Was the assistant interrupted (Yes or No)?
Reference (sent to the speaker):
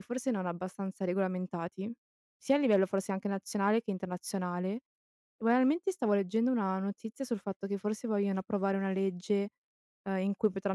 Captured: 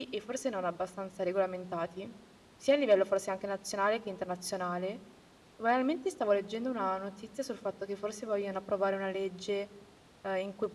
No